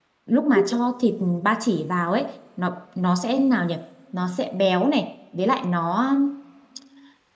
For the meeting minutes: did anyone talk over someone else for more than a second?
No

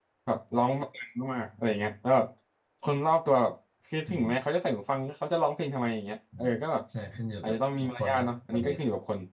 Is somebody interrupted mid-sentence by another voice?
Yes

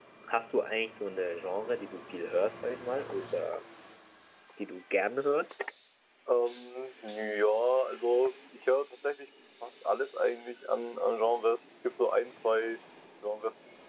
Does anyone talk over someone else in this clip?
No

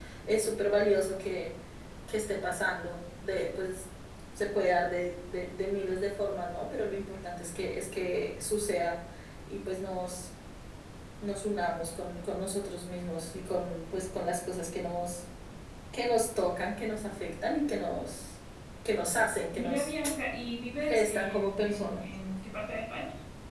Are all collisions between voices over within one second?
No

